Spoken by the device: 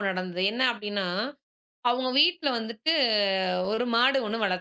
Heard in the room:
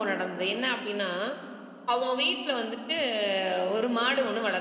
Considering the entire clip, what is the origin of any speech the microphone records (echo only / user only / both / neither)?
echo only